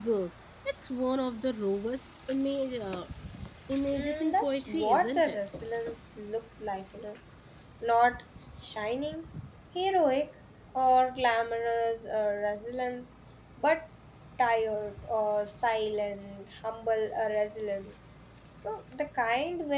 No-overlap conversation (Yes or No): No